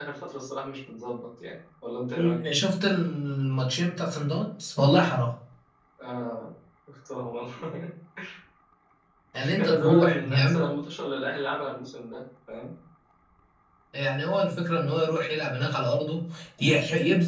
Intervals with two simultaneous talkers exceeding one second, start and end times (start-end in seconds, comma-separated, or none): 9.4-10.6